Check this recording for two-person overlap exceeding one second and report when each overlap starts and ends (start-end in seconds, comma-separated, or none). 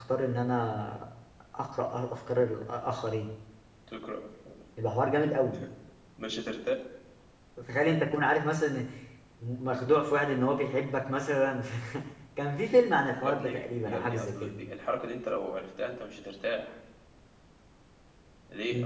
13.2-14.5